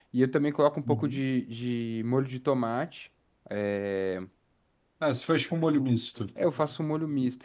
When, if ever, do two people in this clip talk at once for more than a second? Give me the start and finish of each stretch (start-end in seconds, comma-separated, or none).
none